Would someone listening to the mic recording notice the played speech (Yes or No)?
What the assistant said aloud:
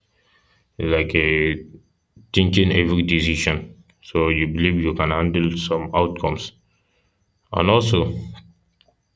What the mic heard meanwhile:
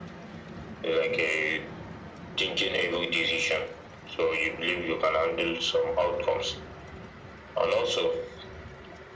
Yes